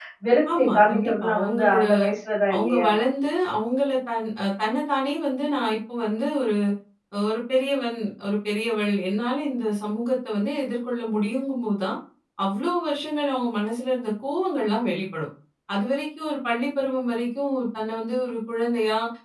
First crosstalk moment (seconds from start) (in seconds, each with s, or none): 0.6 s